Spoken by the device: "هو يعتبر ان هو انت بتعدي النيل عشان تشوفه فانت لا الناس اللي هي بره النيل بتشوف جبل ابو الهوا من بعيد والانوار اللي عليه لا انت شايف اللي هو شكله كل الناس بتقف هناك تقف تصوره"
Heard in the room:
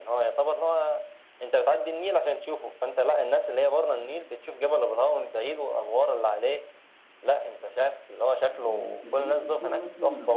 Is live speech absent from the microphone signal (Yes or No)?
No